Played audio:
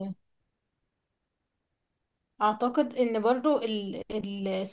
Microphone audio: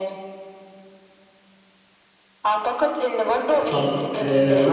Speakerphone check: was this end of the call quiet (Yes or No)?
No